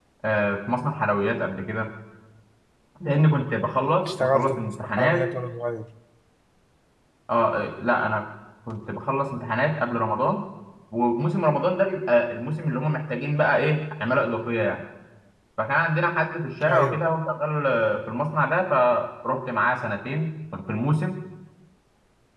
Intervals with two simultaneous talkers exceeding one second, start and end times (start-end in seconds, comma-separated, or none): 4.0-5.2